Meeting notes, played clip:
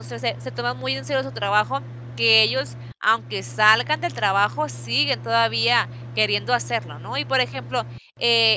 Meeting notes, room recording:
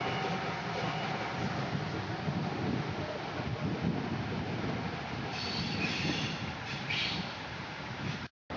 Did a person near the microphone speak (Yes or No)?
No